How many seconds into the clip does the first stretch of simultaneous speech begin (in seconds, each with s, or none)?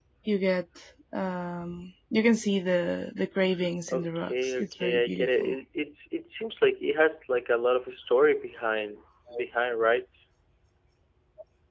3.9 s